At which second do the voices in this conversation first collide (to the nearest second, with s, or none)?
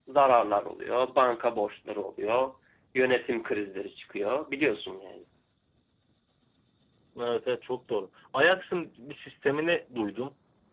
none